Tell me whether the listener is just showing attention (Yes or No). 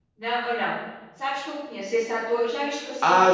No